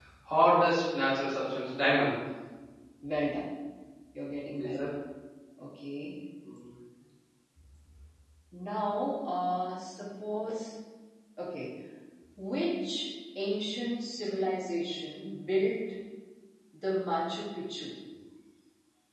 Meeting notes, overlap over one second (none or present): none